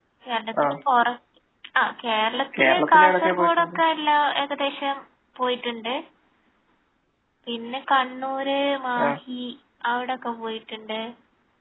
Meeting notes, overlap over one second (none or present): present